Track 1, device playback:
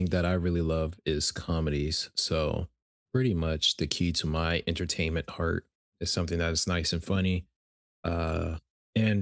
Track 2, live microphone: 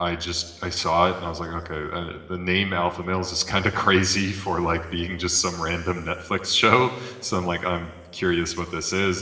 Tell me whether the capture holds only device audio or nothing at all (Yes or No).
No